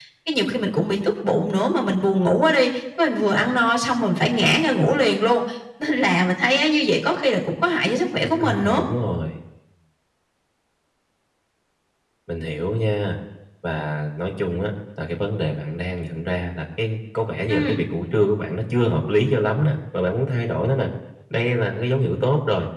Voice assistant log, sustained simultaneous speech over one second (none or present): none